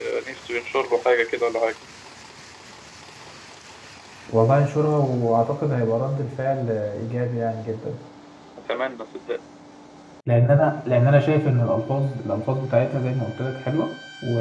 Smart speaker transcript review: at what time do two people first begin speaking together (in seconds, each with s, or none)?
none